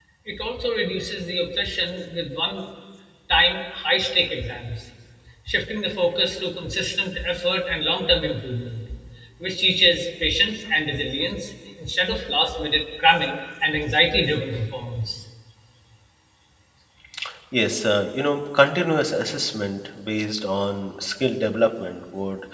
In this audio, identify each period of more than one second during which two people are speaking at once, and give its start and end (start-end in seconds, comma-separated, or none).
none